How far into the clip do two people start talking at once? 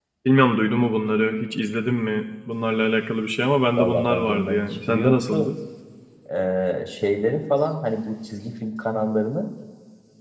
4 s

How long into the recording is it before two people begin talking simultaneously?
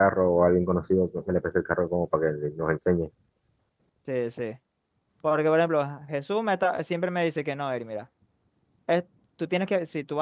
none

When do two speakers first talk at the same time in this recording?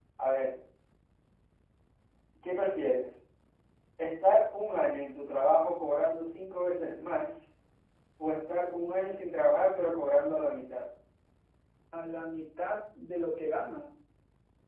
none

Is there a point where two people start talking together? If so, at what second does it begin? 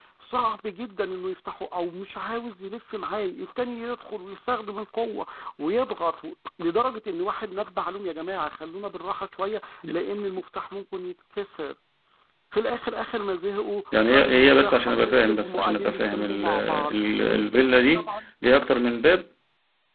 14 s

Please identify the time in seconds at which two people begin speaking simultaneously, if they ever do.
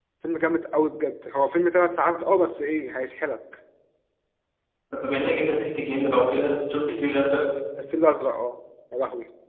none

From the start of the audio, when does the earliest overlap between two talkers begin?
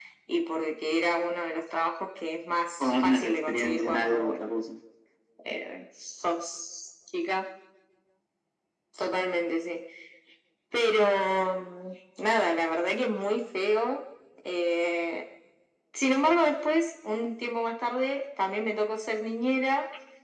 3 s

